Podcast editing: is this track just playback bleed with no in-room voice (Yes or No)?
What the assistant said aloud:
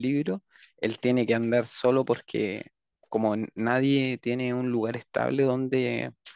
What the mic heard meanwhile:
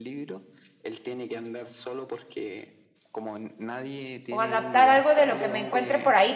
No